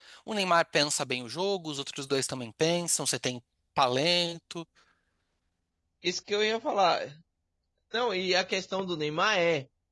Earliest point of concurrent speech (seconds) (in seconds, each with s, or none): none